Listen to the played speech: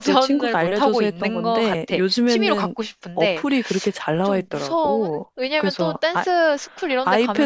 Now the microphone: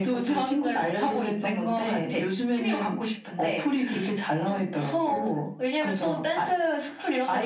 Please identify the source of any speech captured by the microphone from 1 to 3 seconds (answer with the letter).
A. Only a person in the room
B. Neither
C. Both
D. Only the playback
D